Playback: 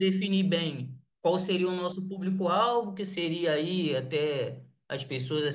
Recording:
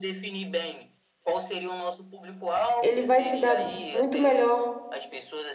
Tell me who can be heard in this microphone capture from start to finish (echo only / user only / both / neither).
both